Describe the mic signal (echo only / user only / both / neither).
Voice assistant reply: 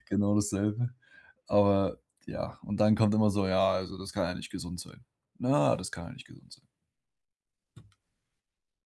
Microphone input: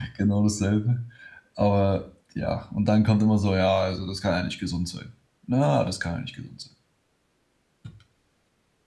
echo only